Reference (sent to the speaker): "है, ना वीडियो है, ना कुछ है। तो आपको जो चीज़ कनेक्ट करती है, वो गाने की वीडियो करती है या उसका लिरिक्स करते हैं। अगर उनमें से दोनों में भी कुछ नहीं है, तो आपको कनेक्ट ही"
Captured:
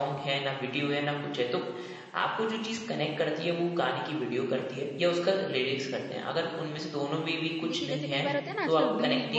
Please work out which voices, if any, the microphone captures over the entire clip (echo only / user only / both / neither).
both